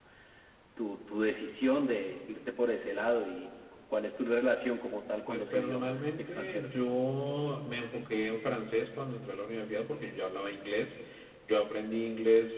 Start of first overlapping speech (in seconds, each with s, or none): 5.3 s